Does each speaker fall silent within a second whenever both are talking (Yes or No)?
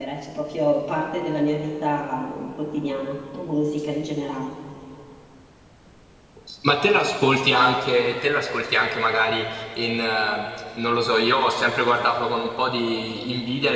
Yes